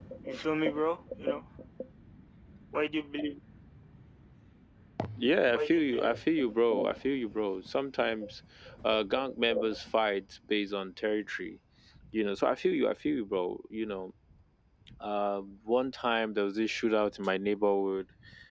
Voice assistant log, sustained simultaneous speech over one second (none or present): none